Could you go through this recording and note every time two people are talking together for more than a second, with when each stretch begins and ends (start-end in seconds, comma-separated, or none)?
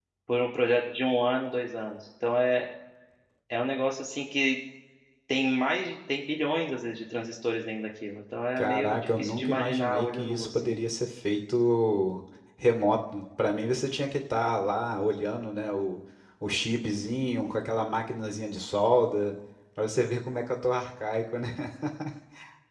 8.6-10.8